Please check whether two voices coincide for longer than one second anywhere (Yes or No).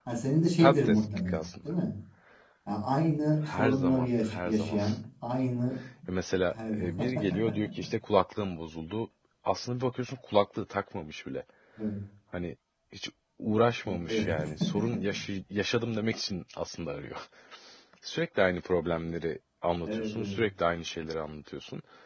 Yes